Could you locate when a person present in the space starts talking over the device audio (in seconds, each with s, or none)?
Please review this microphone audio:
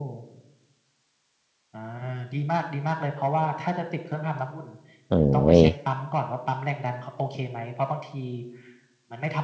5.1 s